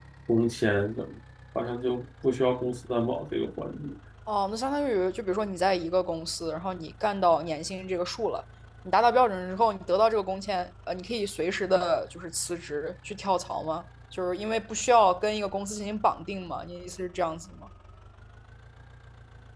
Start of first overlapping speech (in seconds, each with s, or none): none